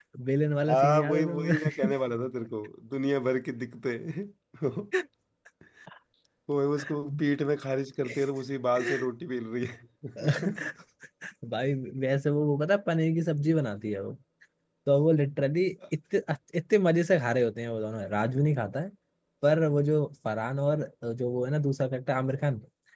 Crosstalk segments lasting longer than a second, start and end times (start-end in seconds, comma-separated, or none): 0.7-1.9